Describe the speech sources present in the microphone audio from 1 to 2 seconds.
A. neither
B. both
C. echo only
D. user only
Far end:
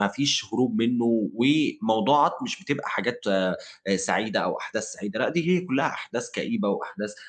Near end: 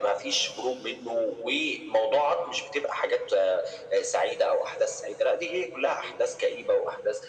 C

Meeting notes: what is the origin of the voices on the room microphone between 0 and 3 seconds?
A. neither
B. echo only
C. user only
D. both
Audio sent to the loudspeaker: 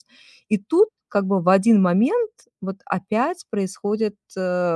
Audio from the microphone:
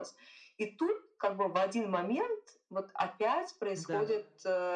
B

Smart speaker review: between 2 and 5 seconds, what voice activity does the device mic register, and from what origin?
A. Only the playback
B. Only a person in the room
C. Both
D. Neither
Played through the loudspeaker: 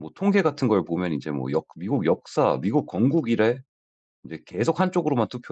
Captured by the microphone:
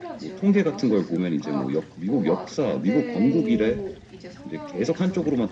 C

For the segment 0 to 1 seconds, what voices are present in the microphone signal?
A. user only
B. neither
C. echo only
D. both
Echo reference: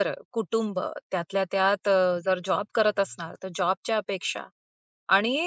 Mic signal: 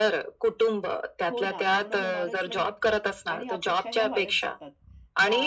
C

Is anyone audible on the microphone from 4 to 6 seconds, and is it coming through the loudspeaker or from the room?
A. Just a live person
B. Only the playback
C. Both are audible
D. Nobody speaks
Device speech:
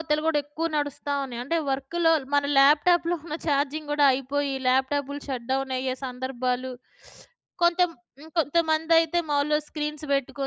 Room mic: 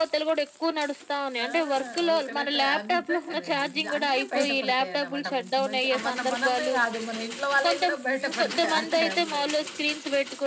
C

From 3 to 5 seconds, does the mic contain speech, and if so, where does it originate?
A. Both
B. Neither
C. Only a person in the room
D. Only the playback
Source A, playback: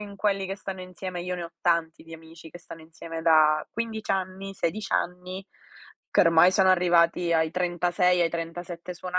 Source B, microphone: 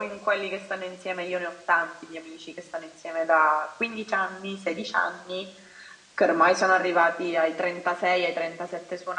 D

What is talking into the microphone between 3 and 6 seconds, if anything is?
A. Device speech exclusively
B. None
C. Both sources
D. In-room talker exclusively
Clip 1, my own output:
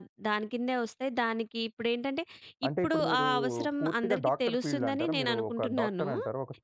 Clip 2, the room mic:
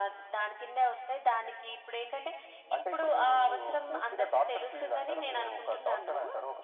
A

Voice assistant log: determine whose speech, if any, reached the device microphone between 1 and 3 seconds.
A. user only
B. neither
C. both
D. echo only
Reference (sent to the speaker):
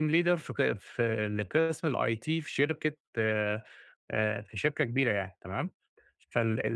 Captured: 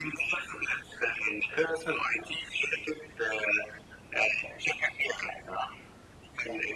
D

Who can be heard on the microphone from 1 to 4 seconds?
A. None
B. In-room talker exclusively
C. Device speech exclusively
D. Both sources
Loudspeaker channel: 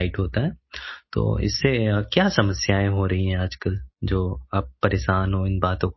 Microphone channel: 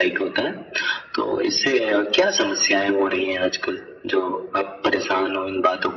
C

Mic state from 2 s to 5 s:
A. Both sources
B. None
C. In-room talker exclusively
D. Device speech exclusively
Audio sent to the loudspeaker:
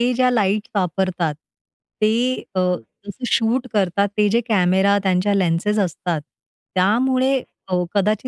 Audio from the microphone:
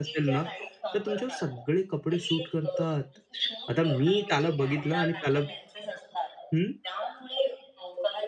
A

